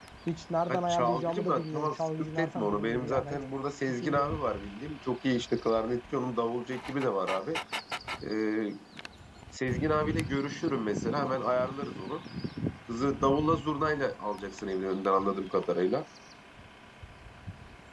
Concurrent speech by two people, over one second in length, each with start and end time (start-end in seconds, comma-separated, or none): 0.7-3.4